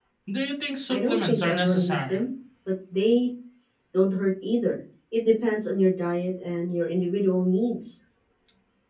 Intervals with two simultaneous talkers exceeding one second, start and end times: 0.9-2.2

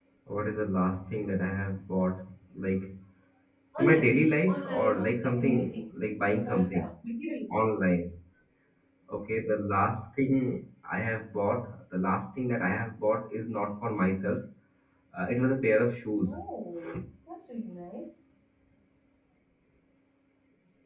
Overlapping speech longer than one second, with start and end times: 4.5-5.8

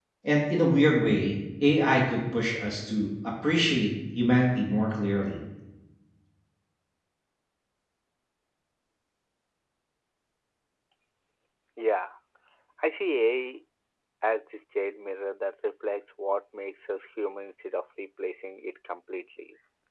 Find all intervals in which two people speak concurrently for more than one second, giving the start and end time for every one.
none

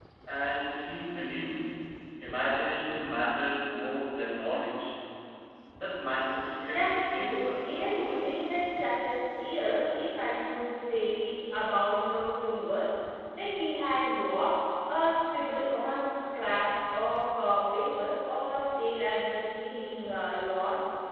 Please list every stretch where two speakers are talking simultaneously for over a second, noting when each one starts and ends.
6.7-8.3

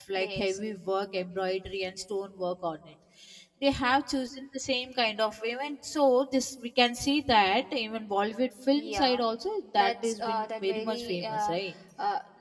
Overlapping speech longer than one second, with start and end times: 9.7-11.5

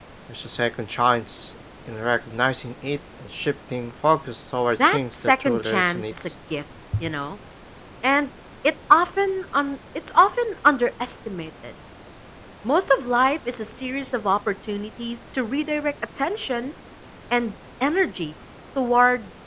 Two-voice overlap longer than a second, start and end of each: 4.8-6.1

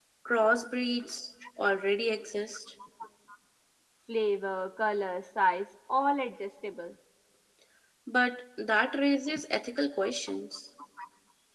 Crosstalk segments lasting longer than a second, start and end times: none

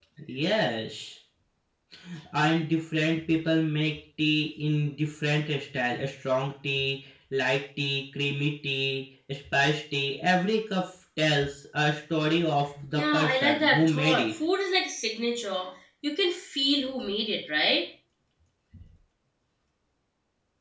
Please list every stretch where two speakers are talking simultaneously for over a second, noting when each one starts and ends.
12.9-14.3

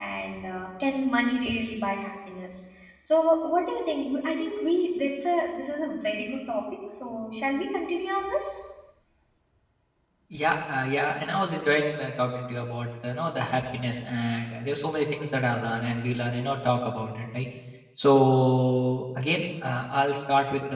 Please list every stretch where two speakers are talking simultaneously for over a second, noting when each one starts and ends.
none

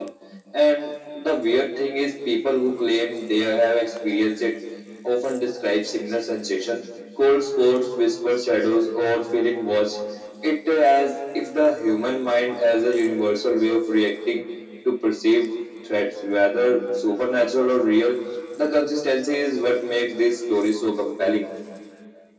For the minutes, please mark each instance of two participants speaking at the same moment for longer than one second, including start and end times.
none

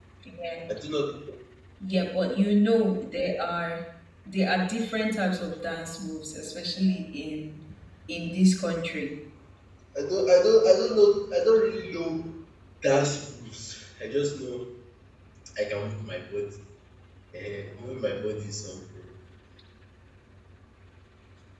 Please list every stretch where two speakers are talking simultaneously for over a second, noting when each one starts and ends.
none

